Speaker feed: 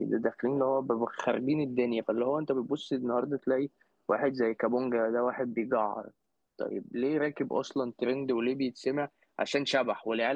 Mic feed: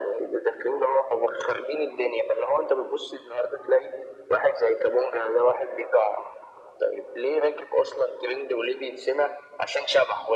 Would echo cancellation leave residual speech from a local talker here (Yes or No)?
No